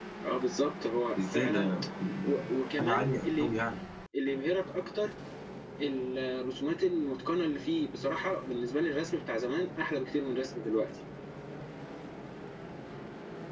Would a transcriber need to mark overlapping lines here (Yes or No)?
Yes